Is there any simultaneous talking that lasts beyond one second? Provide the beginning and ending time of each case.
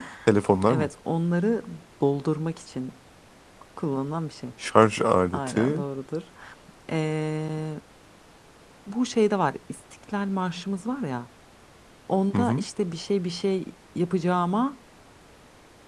none

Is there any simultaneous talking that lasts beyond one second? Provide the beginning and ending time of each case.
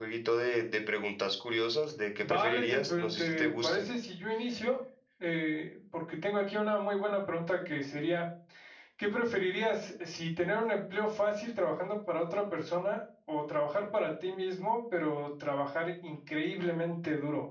2.2-3.8

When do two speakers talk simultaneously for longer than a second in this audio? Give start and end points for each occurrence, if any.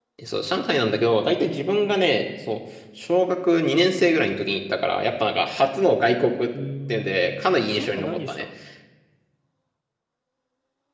6.9-8.4

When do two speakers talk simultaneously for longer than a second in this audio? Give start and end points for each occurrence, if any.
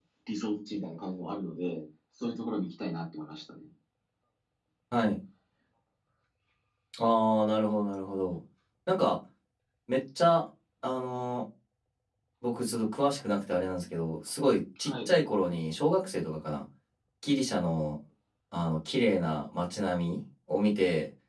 none

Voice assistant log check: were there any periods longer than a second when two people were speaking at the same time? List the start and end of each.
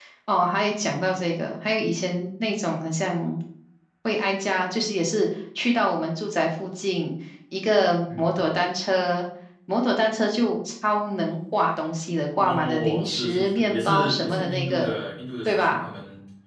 12.4-15.0

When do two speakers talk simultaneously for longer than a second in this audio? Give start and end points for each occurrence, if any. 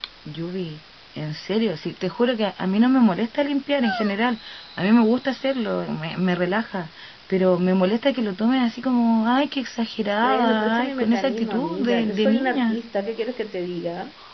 10.2-12.8

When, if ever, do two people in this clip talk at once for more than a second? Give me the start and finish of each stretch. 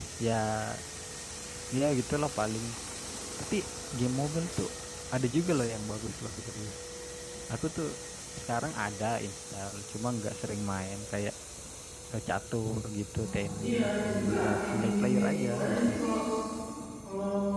13.2-15.9

